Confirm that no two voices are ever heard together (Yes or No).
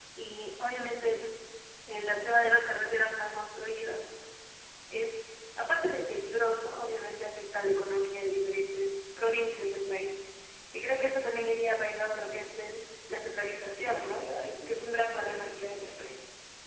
No